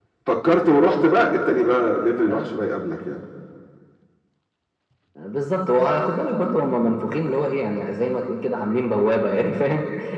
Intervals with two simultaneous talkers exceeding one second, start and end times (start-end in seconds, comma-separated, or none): none